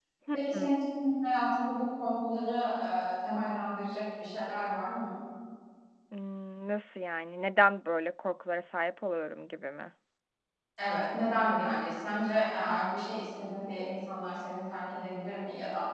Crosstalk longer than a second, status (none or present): none